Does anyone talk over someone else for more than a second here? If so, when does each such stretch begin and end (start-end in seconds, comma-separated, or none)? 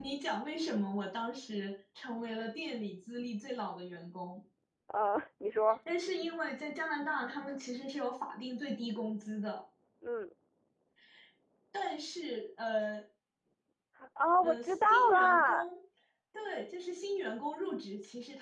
14.4-15.7